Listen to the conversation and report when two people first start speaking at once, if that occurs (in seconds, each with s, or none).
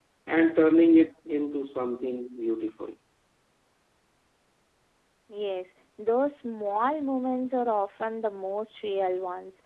none